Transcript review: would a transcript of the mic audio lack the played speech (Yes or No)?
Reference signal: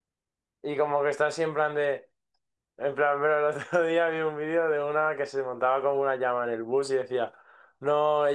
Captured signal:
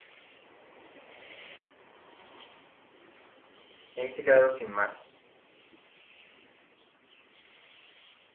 Yes